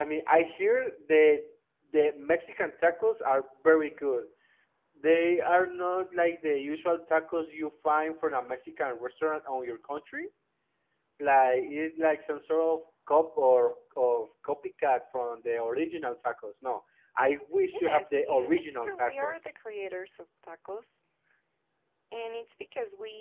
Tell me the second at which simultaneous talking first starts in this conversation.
18 s

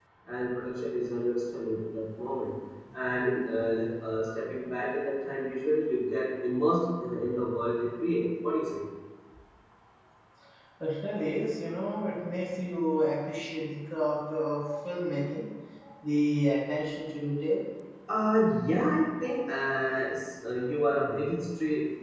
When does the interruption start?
none

